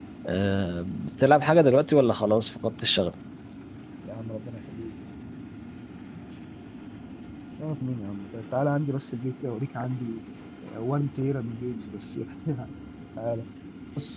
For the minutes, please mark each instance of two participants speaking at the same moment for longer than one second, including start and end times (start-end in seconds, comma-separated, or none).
none